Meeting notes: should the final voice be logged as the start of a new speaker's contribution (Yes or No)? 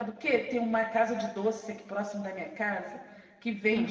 No